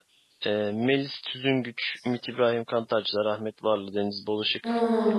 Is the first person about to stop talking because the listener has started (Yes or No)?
Yes